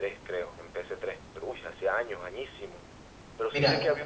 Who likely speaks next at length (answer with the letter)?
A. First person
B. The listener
A